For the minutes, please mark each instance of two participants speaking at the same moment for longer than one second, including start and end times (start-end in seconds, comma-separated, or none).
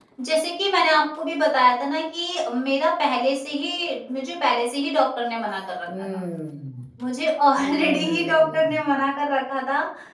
7.6-8.8